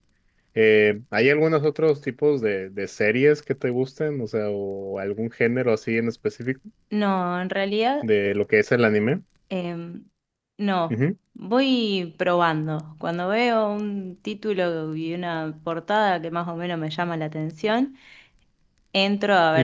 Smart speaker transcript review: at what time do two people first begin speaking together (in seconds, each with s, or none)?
none